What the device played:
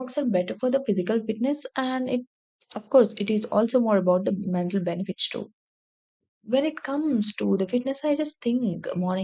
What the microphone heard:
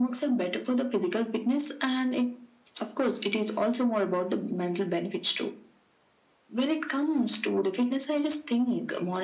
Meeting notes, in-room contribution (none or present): none